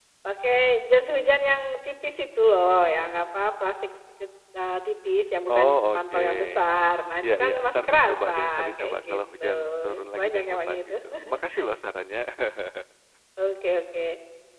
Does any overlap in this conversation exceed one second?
Yes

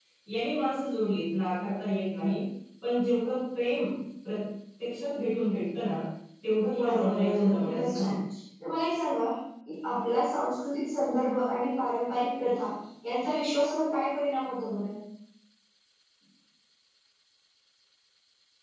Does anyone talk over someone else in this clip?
Yes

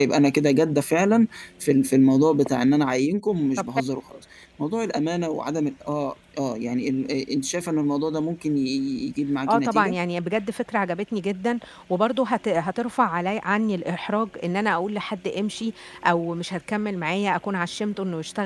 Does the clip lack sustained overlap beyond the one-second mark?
Yes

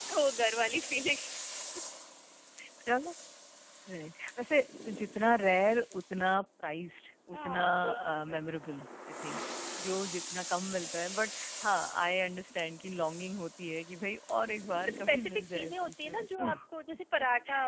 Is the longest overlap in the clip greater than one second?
Yes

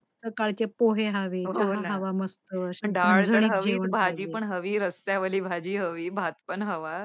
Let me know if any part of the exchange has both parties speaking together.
Yes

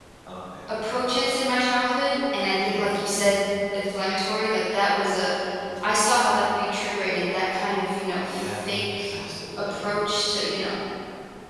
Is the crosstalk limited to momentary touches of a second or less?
Yes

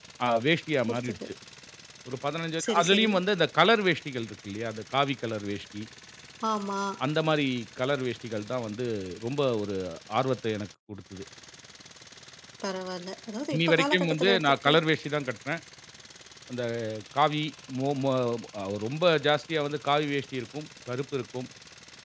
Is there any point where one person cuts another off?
Yes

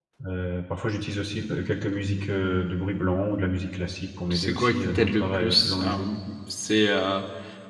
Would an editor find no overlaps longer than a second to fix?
No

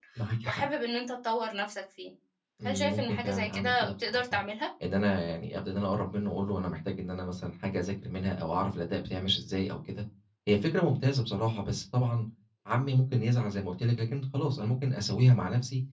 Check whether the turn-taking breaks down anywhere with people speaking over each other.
Yes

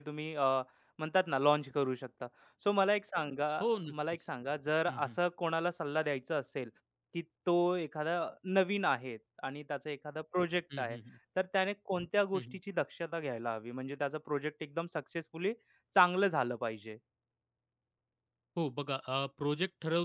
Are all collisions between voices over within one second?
Yes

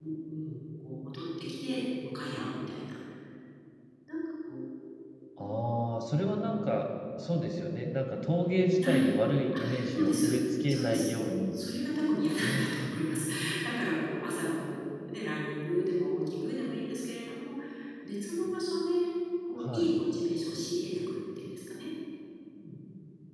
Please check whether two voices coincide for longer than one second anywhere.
Yes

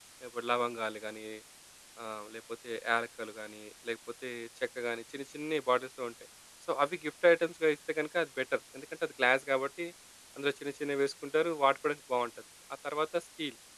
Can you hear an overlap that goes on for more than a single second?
No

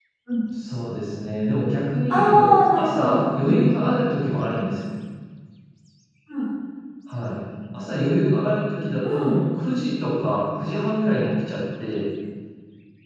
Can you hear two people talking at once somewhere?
Yes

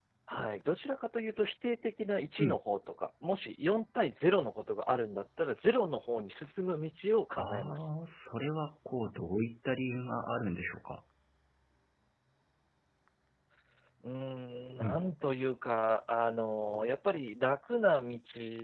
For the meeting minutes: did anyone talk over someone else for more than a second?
No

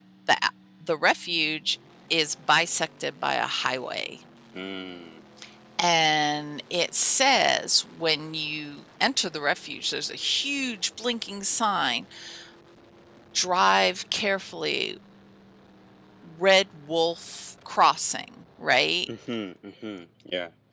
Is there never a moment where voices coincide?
Yes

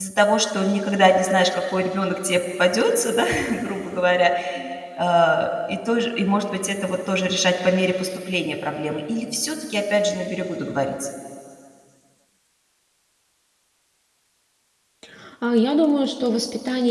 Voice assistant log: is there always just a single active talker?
Yes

